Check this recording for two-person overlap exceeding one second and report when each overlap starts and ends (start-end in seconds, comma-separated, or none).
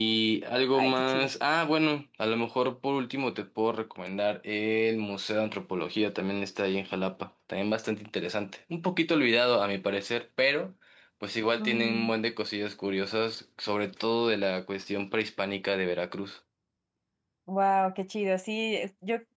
none